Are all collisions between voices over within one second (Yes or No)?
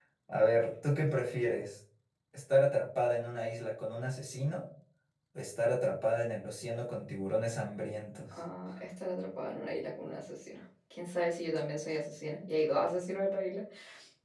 Yes